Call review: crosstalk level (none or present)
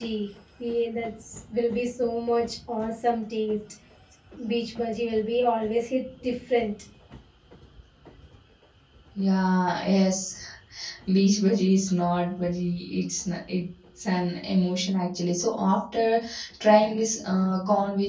none